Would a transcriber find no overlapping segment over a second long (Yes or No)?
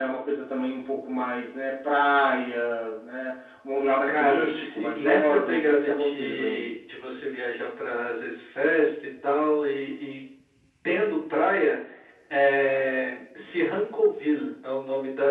No